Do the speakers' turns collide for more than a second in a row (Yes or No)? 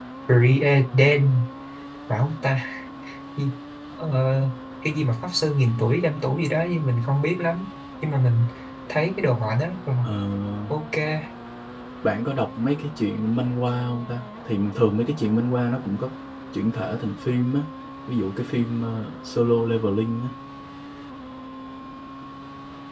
No